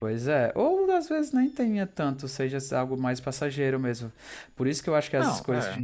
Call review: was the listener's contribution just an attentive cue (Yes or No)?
Yes